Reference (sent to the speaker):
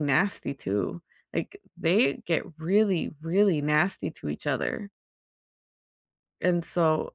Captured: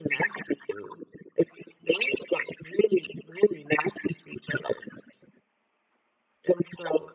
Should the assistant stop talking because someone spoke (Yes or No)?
No